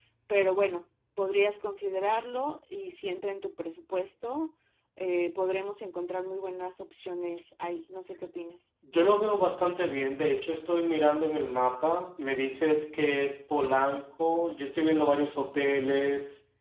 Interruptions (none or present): none